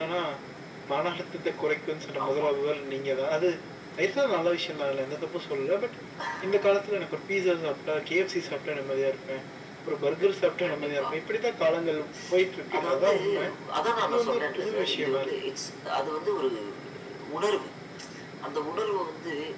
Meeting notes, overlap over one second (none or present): present